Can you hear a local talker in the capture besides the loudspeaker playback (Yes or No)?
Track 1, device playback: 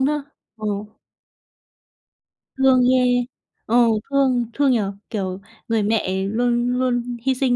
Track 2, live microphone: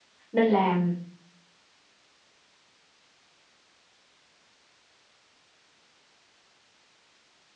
Yes